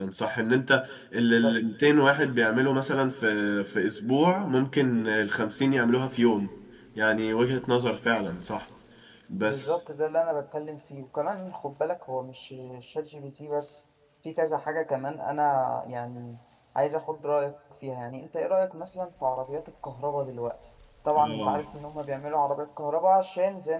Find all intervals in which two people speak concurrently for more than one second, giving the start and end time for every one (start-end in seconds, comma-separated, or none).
none